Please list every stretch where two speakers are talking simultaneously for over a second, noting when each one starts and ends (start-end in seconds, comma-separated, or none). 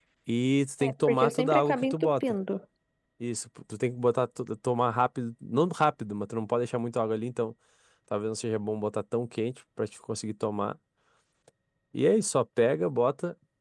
0.8-2.2